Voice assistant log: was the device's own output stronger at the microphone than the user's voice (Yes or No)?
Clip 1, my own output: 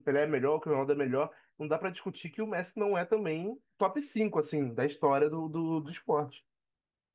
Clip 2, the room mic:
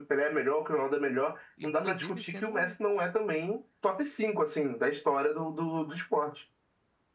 Yes